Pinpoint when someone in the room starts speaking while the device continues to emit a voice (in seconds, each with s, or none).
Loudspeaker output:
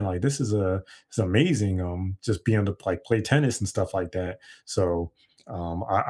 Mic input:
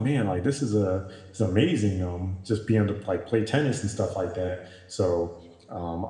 none